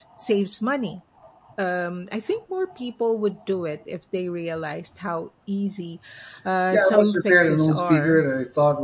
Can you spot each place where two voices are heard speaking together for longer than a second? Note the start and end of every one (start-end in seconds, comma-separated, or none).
6.7-8.2